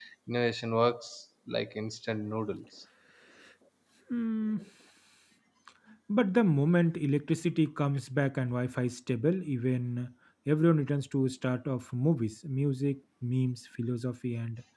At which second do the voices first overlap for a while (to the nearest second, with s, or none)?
none